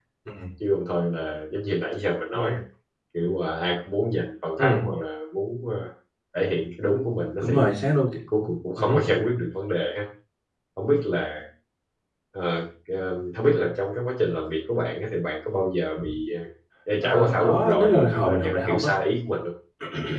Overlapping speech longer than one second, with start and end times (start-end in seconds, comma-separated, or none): 17.0-18.9